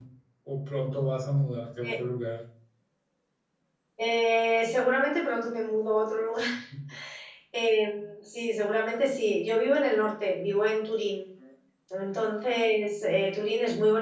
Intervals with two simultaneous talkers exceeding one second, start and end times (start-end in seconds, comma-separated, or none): none